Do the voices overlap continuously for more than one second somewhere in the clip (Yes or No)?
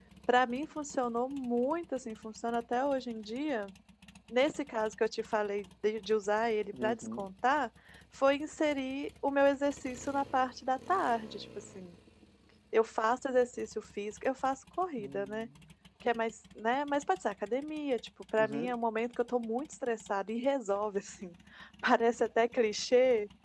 No